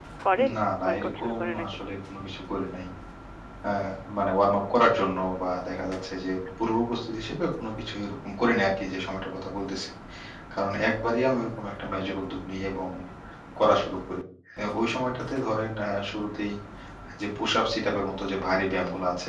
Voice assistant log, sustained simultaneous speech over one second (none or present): present